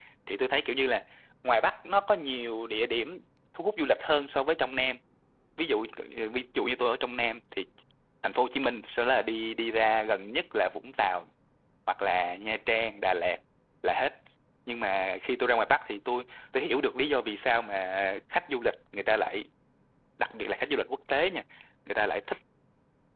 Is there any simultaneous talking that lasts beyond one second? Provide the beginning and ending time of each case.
none

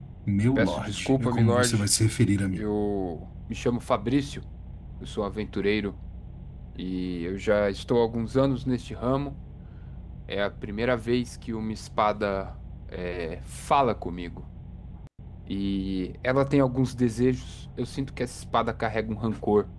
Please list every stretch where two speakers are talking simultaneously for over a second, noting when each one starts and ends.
0.6-1.8

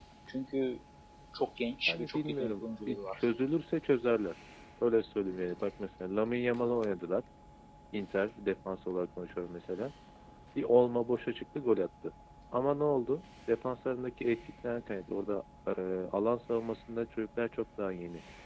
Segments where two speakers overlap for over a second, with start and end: 1.9-3.2

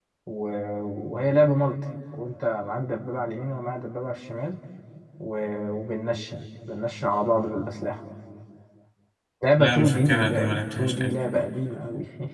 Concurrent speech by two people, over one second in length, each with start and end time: 9.6-11.2

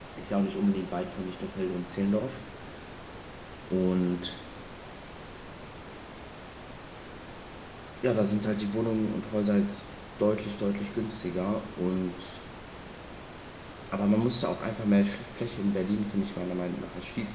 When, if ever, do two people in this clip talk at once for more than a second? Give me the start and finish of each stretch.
none

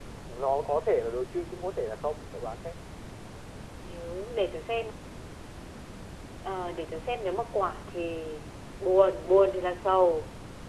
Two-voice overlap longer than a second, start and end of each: none

